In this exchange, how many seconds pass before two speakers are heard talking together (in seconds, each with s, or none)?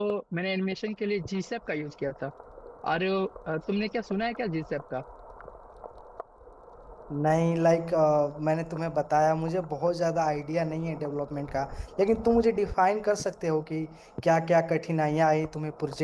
none